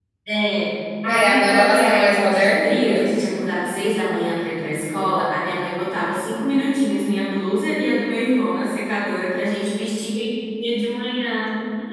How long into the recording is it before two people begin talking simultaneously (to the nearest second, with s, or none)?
1 s